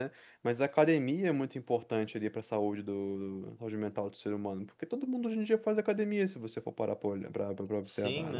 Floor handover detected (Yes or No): Yes